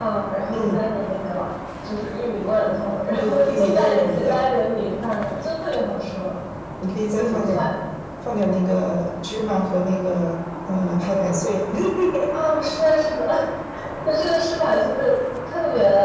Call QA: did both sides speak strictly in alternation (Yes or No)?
No